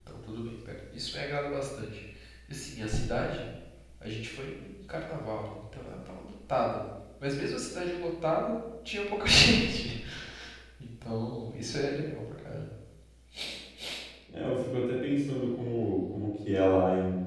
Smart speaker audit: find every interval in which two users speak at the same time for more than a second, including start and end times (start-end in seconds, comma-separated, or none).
none